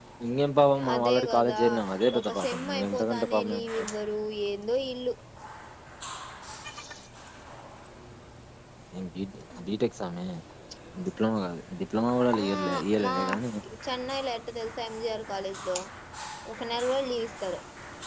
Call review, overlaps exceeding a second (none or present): present